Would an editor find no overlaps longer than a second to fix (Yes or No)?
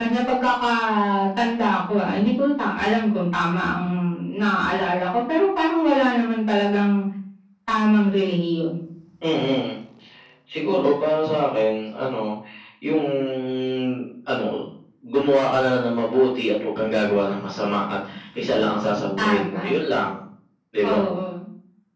Yes